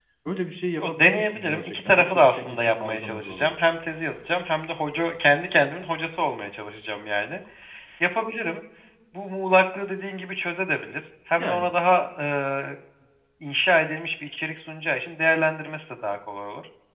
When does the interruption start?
0.8 s

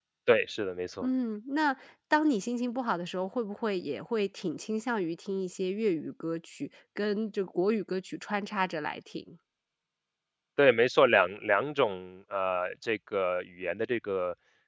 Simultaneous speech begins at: none

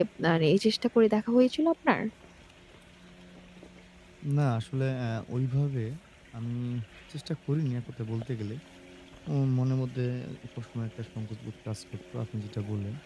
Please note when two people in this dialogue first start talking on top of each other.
none

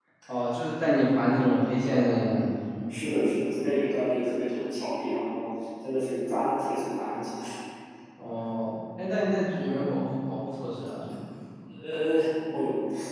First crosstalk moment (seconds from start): none

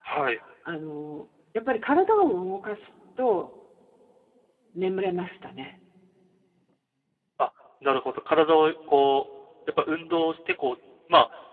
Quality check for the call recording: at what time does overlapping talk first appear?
none

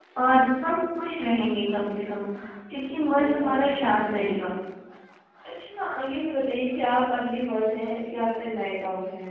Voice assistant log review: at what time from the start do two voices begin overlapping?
3.2 s

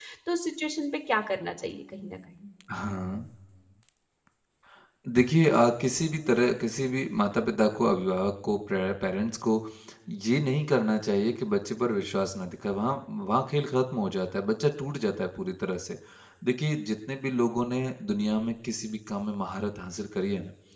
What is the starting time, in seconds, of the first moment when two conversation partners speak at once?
none

